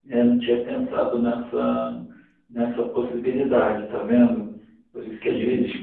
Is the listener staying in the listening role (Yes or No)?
Yes